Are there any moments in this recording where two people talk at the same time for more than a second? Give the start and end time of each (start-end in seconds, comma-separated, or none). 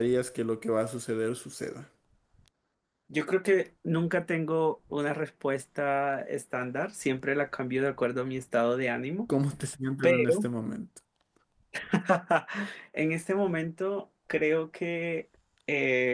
none